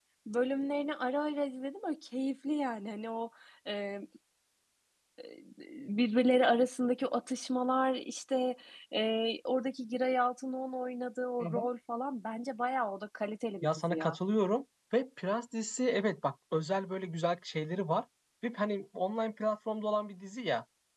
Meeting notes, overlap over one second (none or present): none